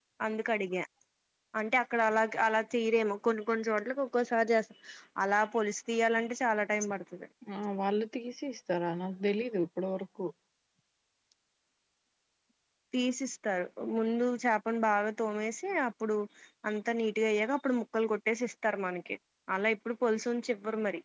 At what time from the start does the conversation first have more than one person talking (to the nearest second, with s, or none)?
none